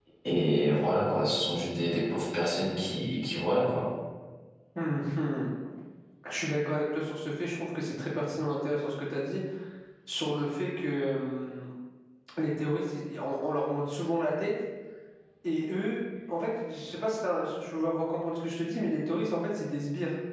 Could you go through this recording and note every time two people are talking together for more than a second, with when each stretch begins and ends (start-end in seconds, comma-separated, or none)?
none